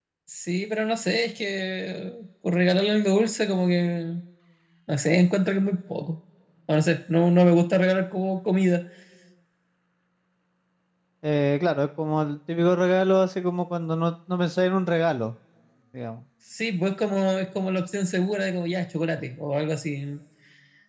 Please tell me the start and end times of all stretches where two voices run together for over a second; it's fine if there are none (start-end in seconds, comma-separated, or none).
none